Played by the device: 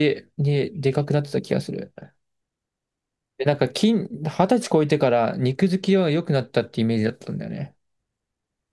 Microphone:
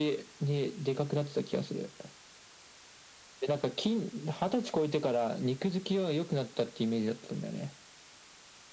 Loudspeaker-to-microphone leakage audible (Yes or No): Yes